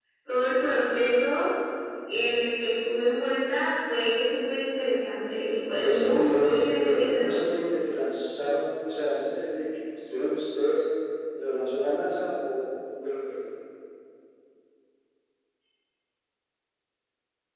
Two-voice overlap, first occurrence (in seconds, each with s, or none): 5.7 s